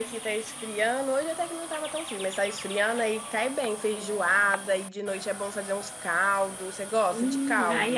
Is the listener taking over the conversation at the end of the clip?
Yes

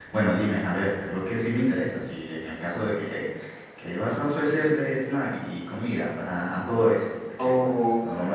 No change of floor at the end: No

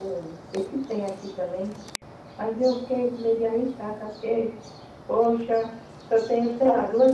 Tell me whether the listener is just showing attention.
Yes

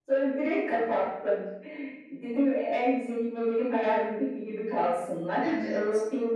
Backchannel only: Yes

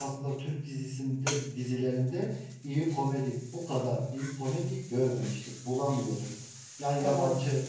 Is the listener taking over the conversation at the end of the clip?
No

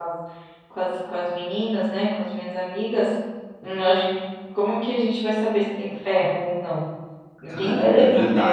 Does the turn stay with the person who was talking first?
No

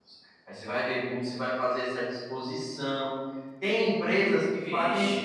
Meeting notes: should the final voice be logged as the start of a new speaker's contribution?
No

